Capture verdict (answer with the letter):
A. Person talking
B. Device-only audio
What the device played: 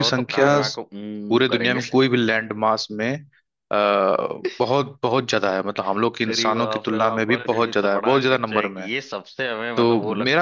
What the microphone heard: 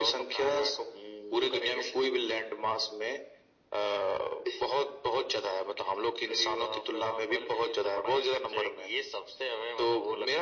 B